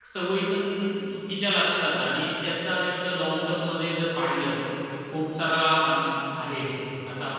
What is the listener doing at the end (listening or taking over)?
taking over